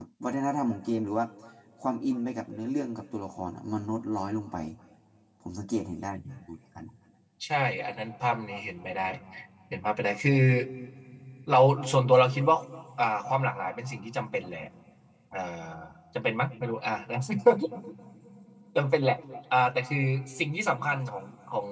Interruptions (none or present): none